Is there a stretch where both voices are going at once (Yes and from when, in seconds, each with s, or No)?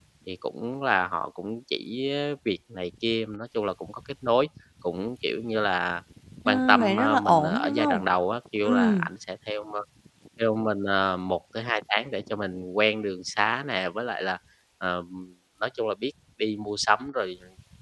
Yes, from 6.5 s